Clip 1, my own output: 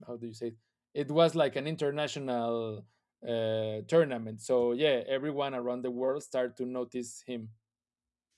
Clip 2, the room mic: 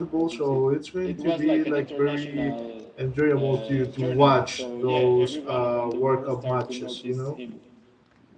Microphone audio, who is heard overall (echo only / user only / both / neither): both